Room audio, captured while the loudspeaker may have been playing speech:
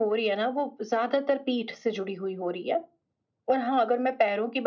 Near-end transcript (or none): none